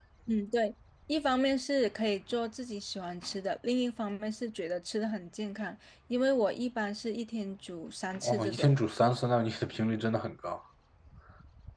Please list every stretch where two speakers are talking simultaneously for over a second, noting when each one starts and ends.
none

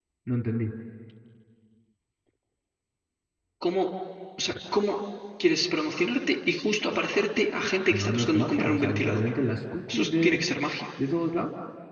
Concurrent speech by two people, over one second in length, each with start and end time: 7.9-9.3

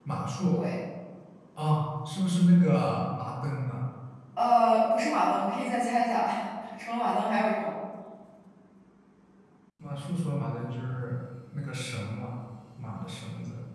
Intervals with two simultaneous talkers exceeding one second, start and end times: none

